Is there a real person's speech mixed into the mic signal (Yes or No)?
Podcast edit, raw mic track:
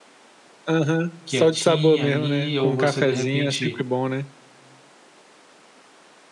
Yes